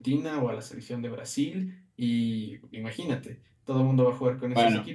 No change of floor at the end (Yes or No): Yes